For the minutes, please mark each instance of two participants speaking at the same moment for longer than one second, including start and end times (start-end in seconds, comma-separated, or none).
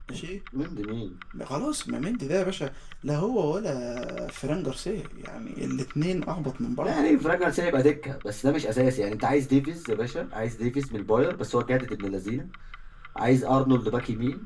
none